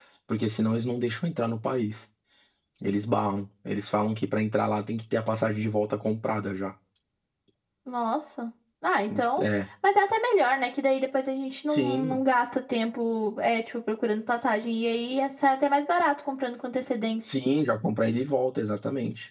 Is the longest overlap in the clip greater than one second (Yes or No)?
No